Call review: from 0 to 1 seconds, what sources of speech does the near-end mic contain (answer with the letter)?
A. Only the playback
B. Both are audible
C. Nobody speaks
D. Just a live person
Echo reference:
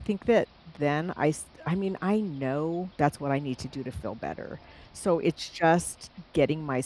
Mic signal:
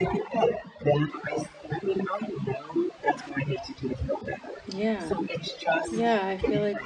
A